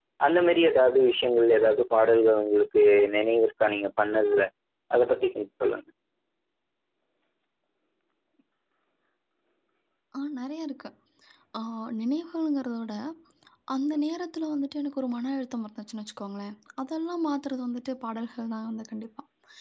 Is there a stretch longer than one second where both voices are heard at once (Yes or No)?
No